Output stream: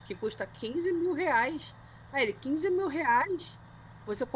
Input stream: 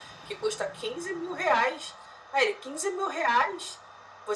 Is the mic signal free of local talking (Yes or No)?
Yes